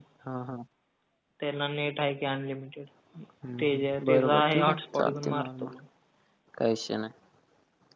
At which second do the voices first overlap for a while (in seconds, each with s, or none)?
3.6 s